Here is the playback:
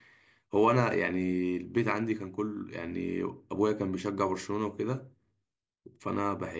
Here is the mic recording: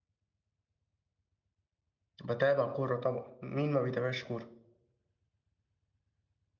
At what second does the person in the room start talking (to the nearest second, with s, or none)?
2 s